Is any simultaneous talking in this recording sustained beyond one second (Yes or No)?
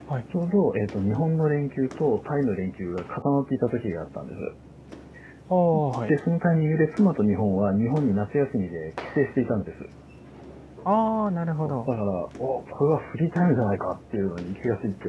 No